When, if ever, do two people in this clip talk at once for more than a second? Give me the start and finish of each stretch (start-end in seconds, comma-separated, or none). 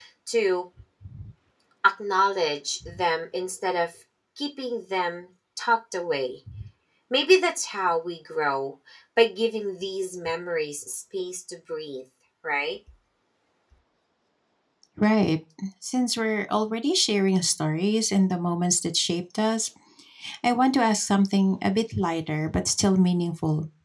none